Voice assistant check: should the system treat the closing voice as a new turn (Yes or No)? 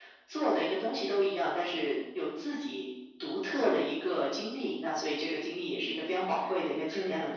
Yes